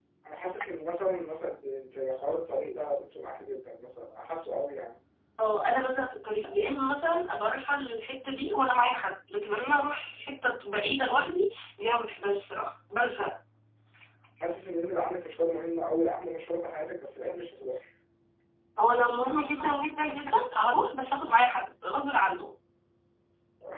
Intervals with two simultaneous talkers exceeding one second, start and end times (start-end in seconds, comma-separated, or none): none